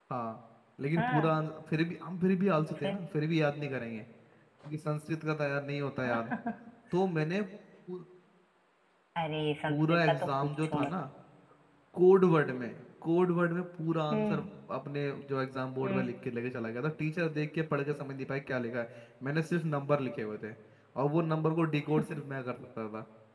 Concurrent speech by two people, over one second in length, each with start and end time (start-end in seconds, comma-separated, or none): 9.7-10.9